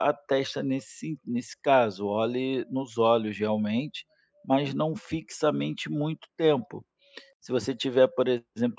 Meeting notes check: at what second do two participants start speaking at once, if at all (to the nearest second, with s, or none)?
none